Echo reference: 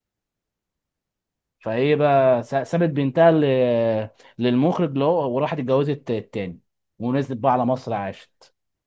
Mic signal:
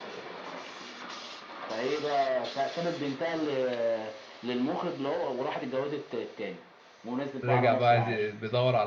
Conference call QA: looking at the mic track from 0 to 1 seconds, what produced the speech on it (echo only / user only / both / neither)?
neither